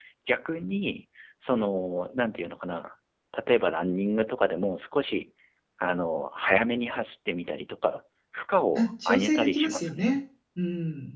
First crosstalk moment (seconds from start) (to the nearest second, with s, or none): 9 s